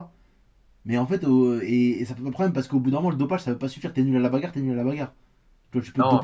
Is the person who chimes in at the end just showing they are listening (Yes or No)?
No